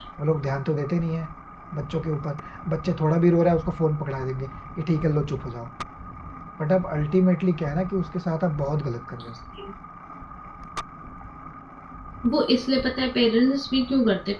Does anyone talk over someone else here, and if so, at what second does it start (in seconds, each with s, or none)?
none